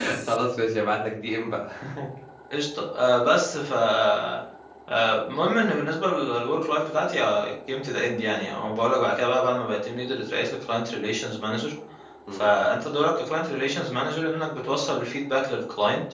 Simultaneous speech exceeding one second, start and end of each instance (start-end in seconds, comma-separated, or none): none